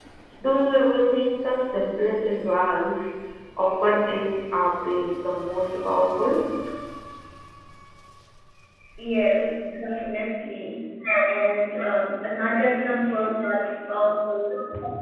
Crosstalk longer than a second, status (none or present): none